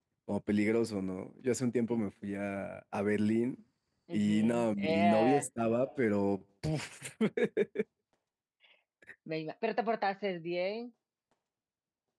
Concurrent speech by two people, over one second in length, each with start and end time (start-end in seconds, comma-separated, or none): 4.1-5.5